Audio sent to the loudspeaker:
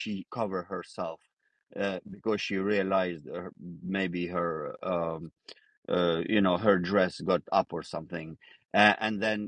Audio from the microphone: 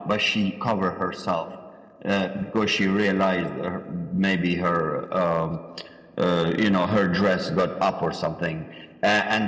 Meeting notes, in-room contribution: none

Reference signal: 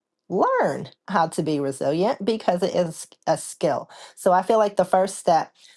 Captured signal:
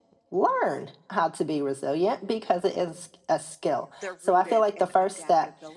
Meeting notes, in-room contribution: present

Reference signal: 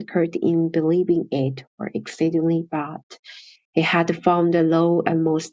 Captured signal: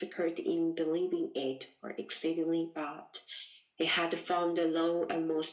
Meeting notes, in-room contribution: none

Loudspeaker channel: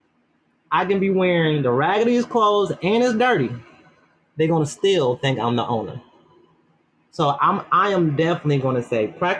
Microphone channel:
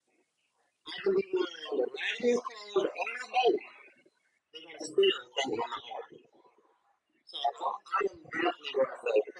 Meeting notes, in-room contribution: none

